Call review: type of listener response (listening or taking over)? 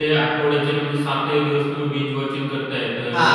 taking over